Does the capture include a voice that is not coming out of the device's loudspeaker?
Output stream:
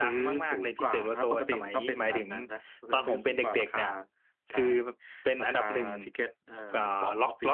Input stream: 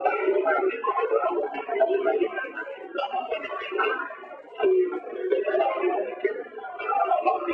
No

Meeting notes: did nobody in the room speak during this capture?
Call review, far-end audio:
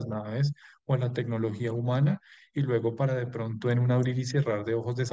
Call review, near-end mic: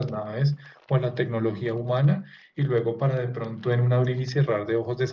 Yes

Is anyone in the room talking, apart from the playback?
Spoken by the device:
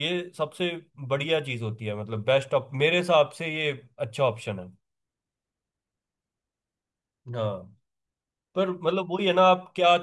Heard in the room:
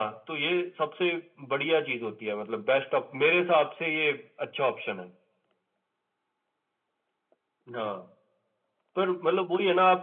No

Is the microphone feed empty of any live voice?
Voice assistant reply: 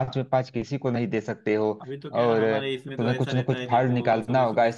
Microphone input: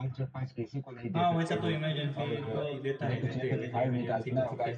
No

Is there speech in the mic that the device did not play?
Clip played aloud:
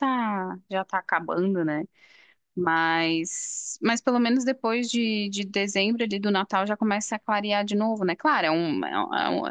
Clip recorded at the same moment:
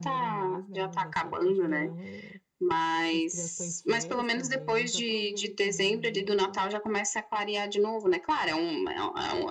Yes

